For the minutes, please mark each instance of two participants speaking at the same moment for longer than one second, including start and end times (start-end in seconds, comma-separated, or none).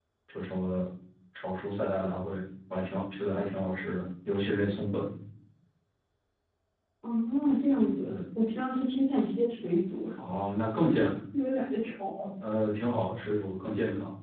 none